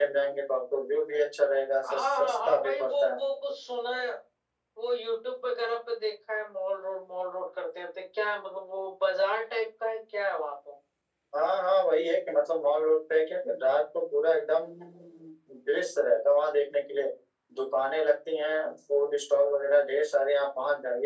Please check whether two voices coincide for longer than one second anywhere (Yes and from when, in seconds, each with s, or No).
Yes, from 1.8 s